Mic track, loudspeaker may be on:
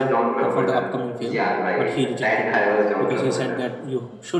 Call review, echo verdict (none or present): present